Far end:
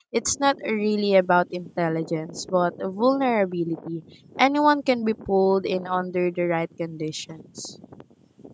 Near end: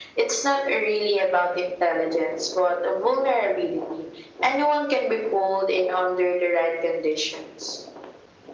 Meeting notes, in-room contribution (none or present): none